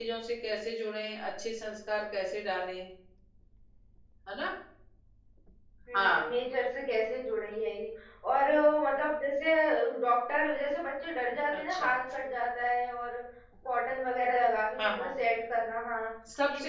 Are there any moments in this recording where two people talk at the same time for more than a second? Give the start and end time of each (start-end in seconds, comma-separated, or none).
none